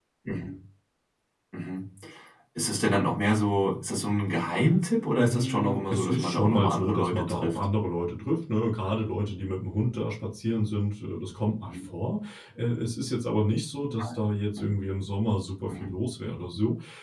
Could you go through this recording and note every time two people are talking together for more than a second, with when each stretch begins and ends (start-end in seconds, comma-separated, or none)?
5.2-7.6